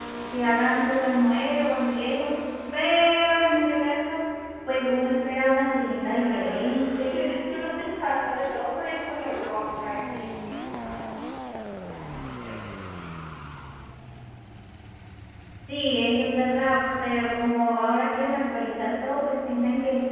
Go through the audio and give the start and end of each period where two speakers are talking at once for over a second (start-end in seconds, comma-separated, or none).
6.1-7.3